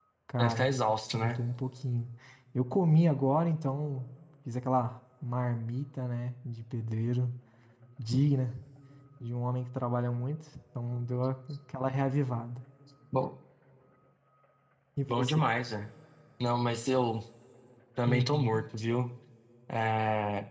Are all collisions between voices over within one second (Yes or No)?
Yes